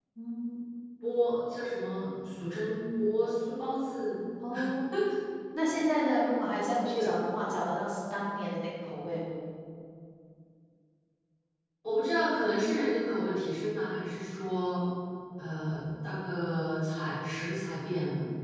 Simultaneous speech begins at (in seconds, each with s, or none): none